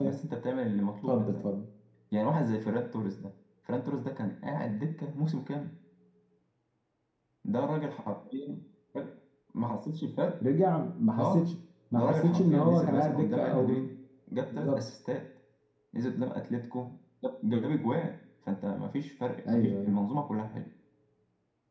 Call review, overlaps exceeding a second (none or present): present